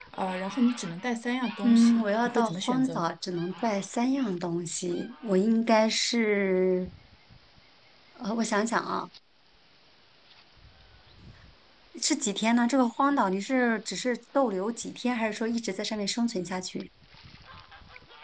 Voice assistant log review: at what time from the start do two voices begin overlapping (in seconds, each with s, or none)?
1.6 s